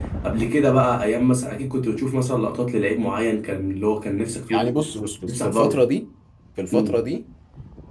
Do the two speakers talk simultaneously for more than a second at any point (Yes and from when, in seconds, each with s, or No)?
No